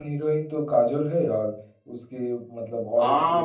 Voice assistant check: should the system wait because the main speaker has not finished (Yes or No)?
No